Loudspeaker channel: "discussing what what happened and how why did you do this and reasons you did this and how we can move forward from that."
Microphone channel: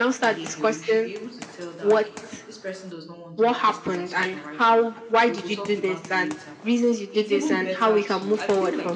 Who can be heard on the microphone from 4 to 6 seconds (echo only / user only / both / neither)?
both